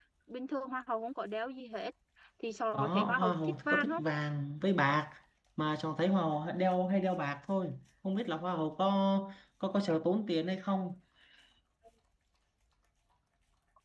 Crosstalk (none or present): present